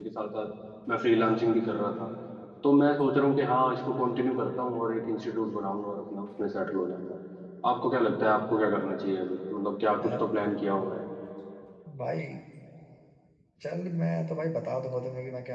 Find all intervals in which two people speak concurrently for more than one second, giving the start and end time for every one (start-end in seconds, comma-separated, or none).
none